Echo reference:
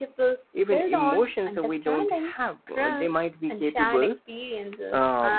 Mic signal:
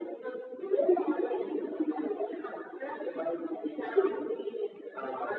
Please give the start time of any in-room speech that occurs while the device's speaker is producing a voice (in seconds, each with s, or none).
none